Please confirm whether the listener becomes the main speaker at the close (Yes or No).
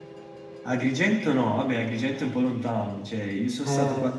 No